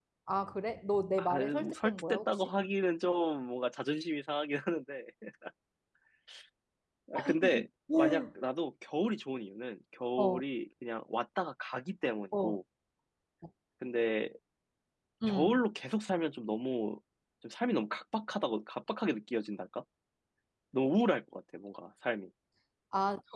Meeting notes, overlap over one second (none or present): present